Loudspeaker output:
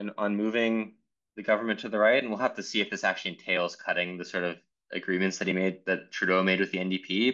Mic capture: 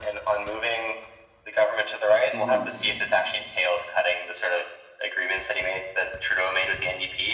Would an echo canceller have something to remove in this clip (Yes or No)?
Yes